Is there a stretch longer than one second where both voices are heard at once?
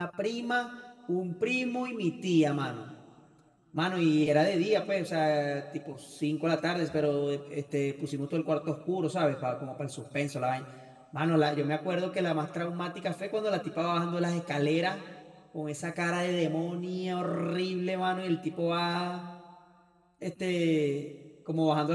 No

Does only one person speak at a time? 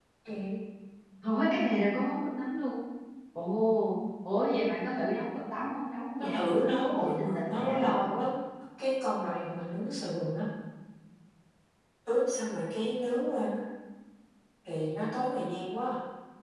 No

